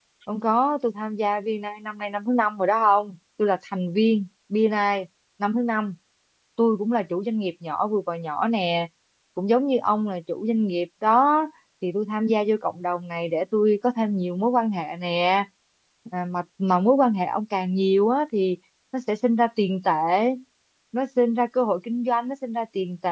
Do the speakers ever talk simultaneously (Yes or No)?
No